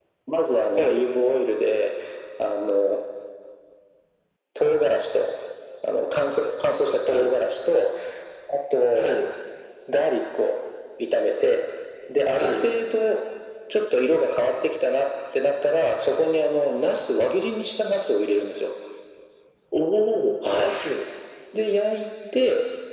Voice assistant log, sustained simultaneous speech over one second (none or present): none